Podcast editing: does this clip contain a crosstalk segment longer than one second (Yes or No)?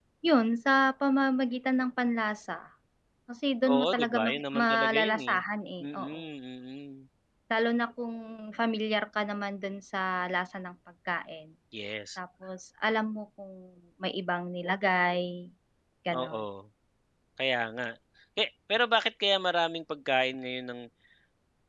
Yes